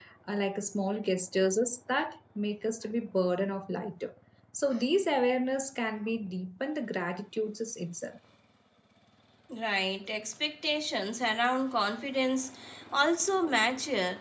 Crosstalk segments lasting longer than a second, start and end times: none

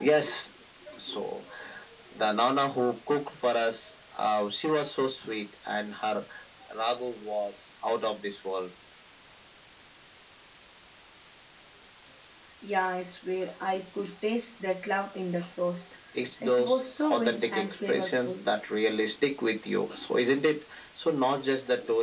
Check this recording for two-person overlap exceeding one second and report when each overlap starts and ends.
16.4-18.5

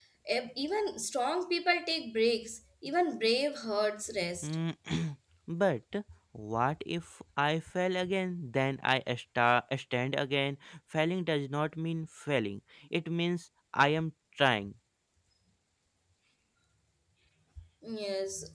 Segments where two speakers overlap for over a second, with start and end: none

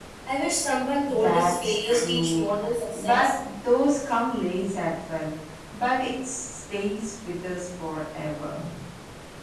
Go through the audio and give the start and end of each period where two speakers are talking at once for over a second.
1.2-2.5

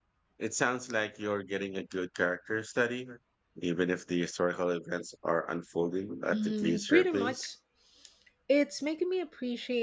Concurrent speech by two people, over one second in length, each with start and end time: 6.3-7.5

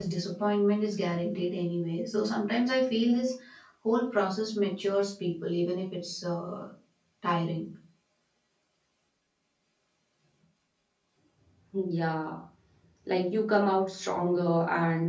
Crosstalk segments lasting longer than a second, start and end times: none

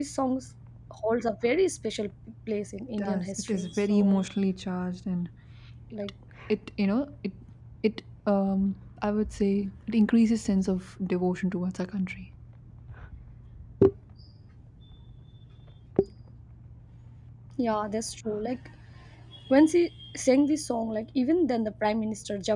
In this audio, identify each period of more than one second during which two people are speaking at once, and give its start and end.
3.0-4.2

